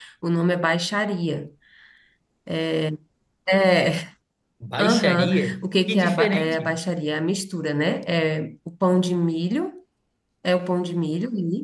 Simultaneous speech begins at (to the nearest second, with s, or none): 5 s